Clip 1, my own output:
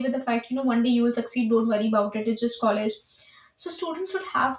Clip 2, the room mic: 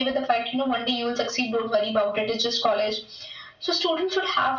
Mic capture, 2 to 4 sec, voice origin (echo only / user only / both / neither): echo only